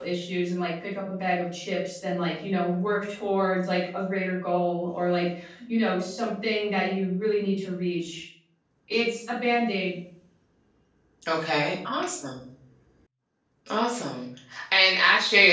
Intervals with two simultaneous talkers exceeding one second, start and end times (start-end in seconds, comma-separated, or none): none